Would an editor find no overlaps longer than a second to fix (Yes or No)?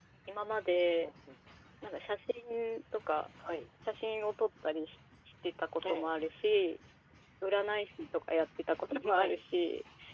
Yes